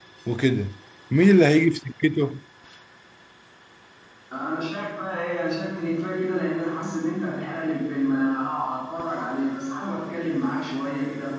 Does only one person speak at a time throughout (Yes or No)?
Yes